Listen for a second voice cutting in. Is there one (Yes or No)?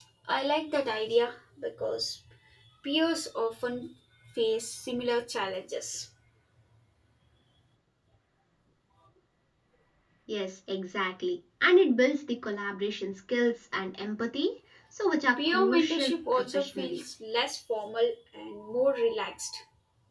Yes